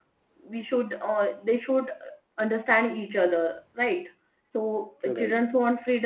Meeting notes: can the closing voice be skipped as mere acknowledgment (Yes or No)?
Yes